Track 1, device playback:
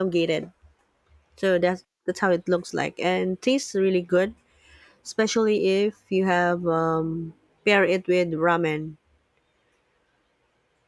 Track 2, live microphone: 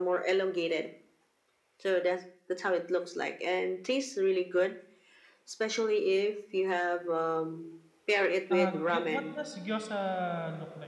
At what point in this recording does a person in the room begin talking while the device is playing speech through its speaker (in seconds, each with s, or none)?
8.5 s